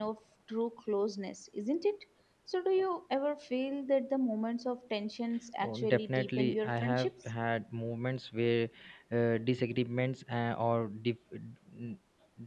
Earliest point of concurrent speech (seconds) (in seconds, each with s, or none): 5.6 s